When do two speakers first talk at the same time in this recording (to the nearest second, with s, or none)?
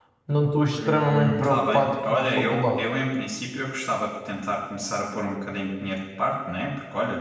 1 s